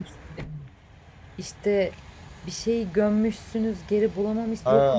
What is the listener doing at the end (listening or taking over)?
taking over